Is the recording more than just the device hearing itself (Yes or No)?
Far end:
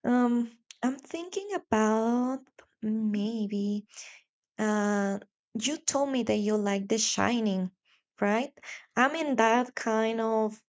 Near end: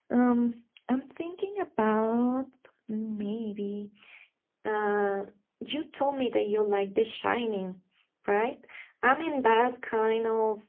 No